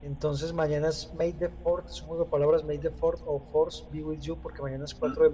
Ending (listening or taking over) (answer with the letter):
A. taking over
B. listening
B